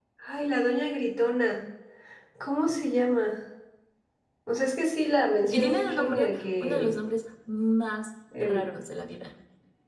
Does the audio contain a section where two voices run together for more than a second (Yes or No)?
Yes